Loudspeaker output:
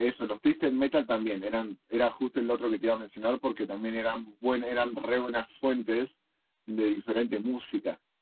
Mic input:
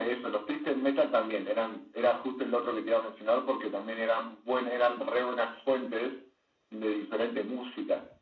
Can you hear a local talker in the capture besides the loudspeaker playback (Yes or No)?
No